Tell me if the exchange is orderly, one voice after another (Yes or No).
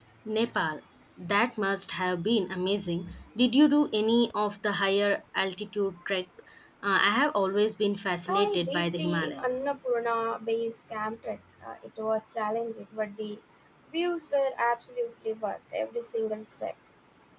No